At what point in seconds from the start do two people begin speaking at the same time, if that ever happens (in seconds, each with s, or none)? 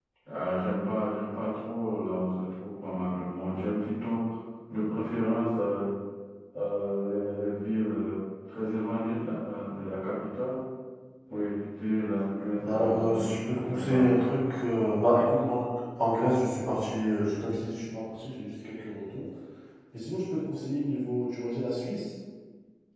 12.6 s